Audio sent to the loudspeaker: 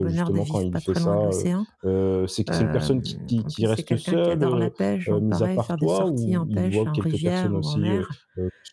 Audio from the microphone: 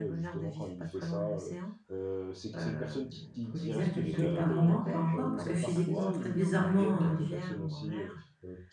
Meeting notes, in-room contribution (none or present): present